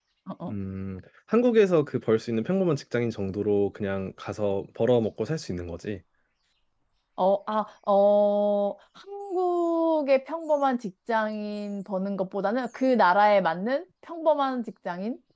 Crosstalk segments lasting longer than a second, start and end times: none

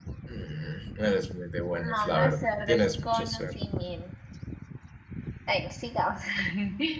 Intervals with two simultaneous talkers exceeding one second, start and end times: 1.8-3.4

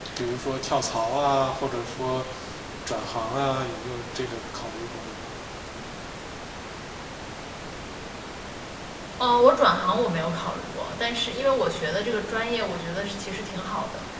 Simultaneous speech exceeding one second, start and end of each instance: none

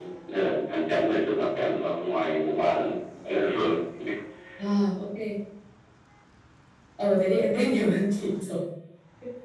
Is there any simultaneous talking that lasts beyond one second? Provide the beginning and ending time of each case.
none

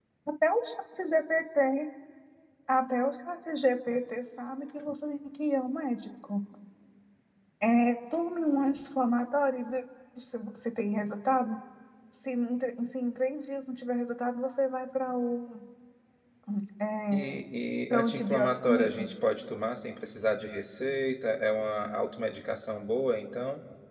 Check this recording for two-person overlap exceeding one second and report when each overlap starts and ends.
17.9-19.1

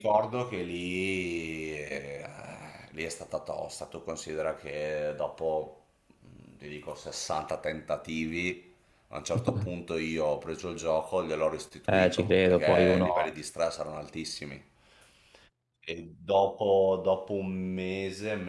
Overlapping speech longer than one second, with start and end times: 11.9-13.3

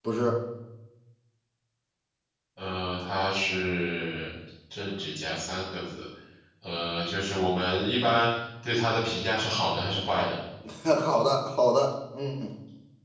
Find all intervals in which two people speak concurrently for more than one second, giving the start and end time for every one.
none

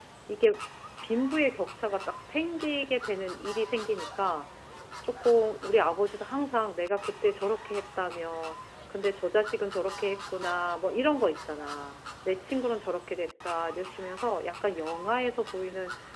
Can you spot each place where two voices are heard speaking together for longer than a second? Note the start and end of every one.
none

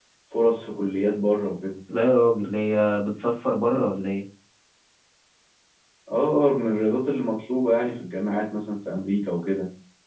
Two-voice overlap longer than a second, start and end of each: none

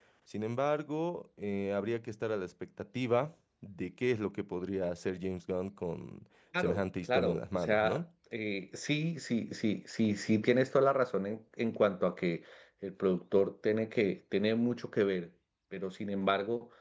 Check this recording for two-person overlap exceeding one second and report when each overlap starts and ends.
6.6-8.0

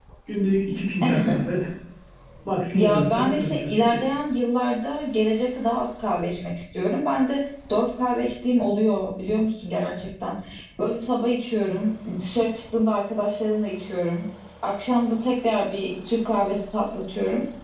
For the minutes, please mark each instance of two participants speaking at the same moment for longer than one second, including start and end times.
2.7-4.0

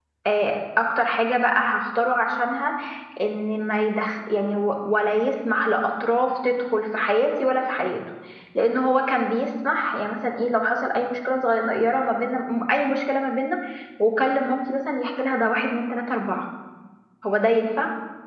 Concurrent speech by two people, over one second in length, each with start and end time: none

